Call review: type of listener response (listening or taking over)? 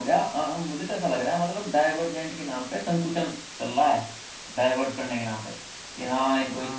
listening